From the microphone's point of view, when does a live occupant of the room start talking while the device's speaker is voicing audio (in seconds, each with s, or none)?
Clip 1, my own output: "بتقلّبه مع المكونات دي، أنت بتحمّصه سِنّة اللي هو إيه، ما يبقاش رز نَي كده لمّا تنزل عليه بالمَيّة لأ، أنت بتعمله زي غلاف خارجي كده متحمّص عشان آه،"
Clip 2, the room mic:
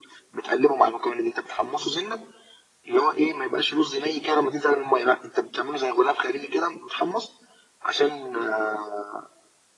none